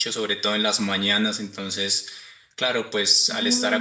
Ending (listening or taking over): listening